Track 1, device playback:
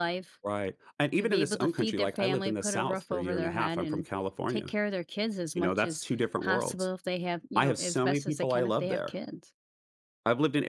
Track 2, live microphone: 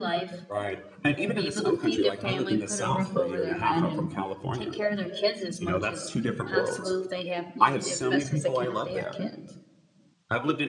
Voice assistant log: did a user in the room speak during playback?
No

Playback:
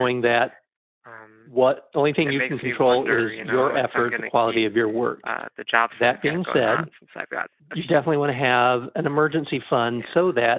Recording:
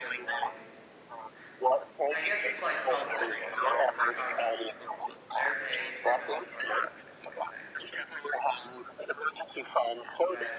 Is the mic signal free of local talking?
No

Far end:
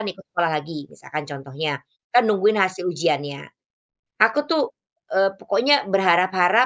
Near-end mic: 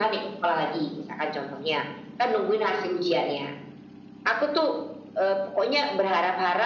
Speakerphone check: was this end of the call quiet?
Yes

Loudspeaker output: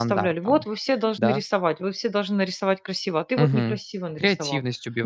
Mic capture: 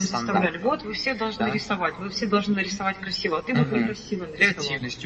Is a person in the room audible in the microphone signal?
No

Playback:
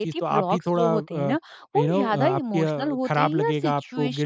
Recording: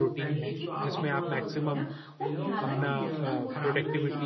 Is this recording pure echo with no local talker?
No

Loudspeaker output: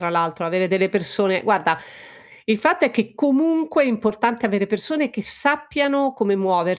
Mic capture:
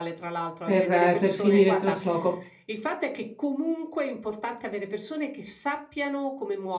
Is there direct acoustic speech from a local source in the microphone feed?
Yes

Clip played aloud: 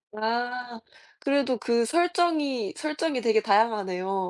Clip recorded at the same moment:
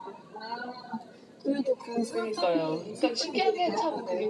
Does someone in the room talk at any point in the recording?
Yes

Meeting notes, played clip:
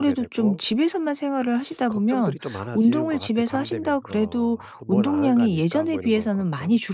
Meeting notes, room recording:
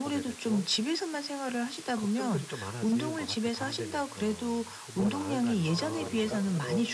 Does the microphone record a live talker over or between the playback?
Yes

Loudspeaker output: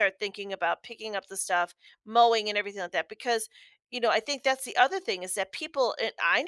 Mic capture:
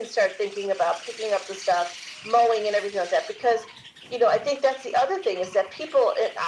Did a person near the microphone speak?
No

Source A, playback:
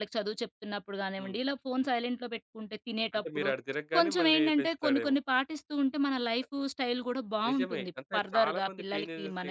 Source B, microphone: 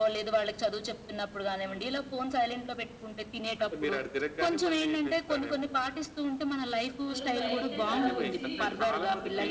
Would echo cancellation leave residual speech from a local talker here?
Yes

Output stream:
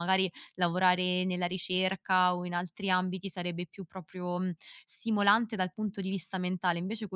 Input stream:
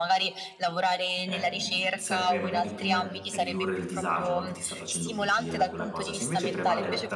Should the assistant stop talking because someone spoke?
Yes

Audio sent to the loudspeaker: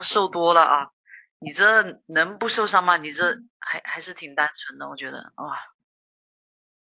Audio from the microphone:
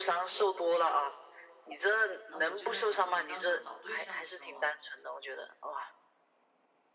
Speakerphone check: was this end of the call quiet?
No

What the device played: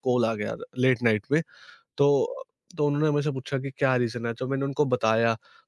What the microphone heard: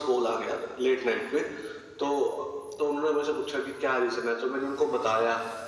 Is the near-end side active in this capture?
No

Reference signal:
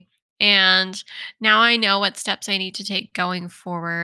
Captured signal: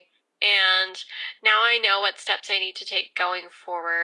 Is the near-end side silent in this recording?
Yes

